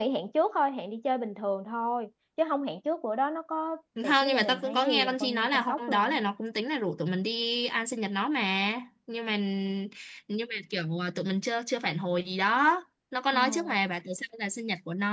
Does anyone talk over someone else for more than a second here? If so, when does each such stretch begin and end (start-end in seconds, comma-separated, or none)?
4.1-6.2